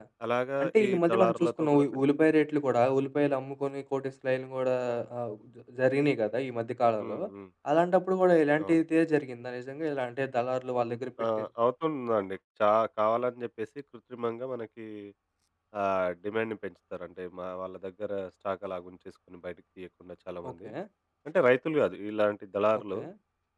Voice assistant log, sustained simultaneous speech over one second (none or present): present